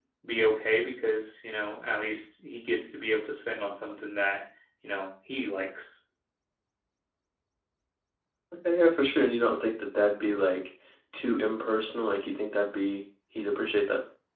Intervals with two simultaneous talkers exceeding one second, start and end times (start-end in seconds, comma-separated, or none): none